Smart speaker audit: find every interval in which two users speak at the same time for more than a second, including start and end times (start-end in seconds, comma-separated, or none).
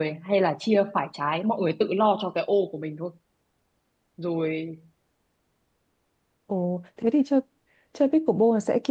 none